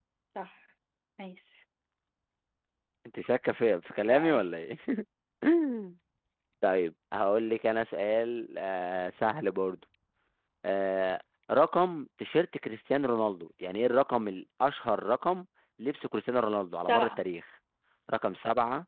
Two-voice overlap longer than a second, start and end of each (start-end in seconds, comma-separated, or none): none